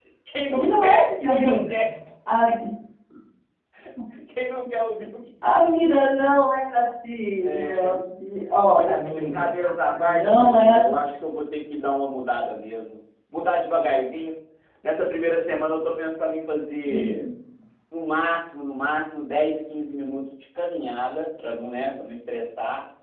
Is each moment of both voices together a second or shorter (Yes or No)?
No